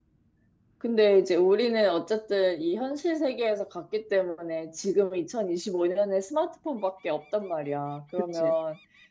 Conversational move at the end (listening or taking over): listening